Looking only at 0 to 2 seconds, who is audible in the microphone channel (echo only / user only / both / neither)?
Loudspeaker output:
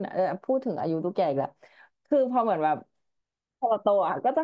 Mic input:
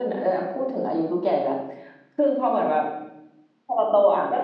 echo only